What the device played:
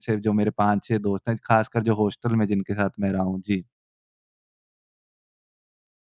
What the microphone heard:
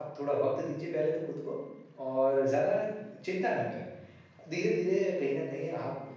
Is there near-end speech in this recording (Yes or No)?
Yes